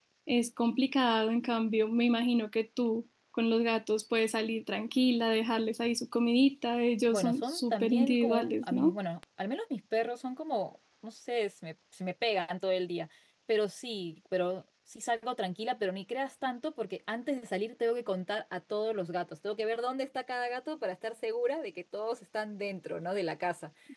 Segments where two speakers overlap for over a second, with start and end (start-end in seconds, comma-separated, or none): 7.1-9.0